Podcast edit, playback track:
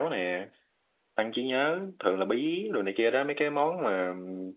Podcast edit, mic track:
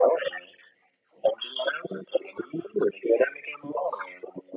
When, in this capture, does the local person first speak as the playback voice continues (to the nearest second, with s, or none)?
none